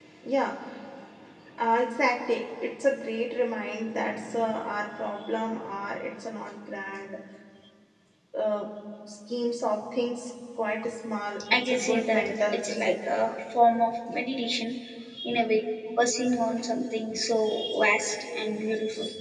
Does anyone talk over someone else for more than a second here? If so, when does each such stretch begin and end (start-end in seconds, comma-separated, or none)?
11.5-12.9